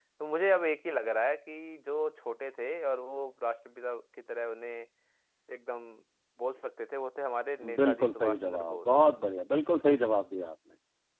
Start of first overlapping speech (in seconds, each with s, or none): 7.6 s